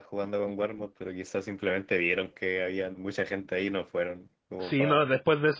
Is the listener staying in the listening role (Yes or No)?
No